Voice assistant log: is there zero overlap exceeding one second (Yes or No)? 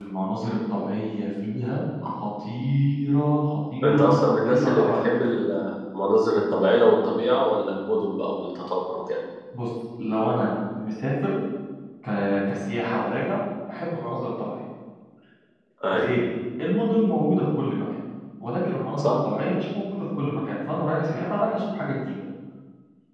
No